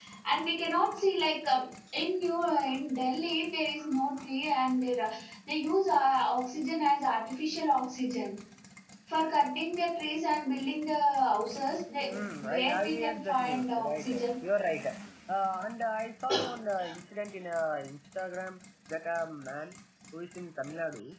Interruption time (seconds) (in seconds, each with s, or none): 12.1 s